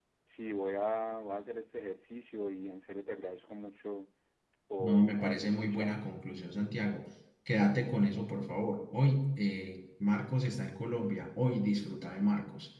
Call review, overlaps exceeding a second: present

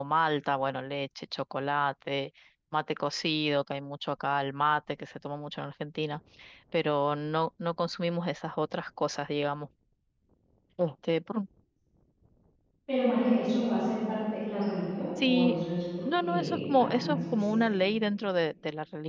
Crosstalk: present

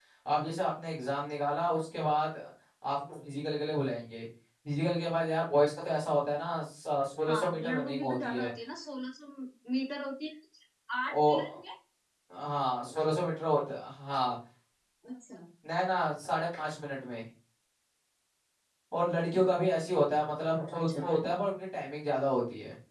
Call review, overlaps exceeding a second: present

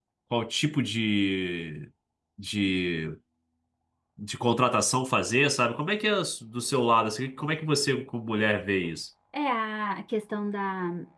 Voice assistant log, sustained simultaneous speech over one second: none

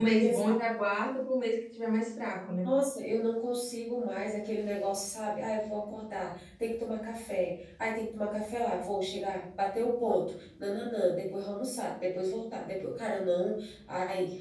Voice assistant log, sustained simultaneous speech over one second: none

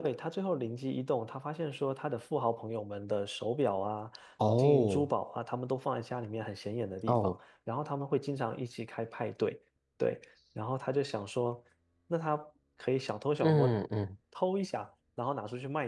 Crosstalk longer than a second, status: none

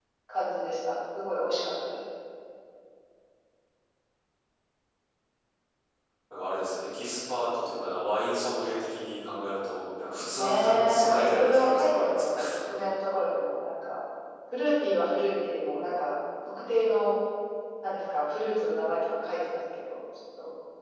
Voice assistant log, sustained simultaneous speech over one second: present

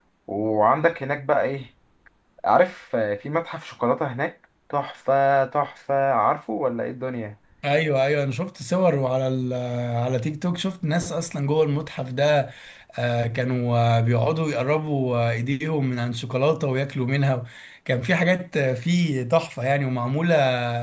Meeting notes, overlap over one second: none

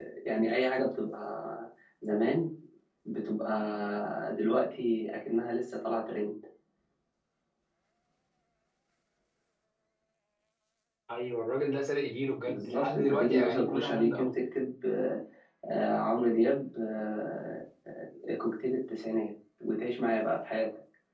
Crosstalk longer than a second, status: present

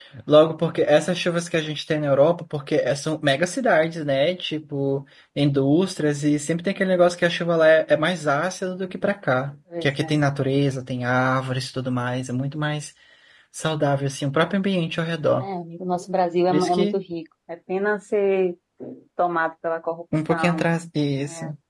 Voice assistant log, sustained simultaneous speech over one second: none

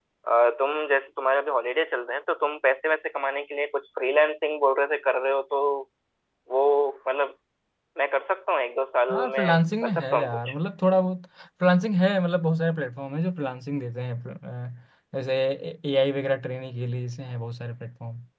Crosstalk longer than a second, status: present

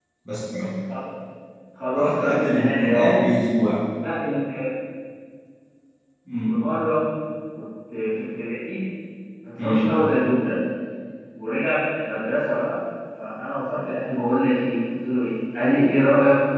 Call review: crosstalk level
present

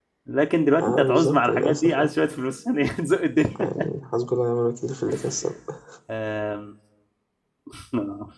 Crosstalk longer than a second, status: present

